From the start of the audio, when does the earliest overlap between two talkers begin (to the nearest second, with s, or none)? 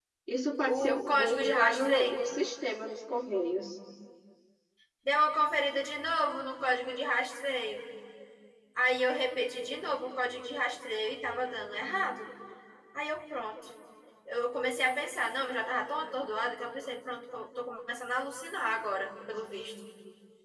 1 s